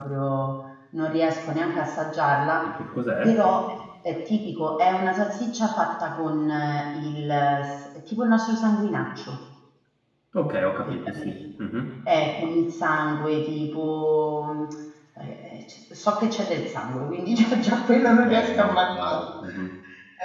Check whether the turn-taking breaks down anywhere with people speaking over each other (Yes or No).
Yes